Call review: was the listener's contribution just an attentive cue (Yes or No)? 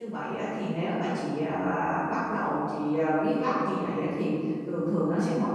Yes